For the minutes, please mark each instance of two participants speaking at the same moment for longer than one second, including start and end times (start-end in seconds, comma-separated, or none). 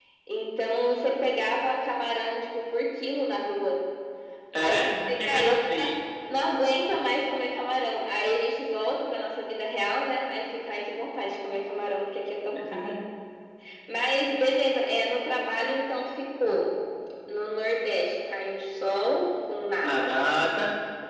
4.6-5.9